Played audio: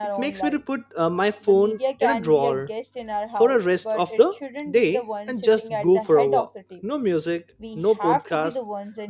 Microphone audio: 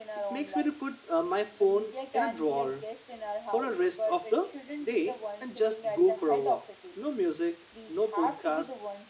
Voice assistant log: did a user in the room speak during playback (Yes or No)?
No